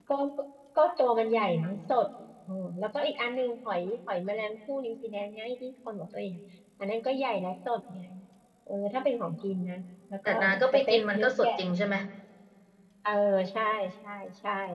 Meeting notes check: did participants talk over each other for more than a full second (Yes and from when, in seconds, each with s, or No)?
Yes, from 10.2 s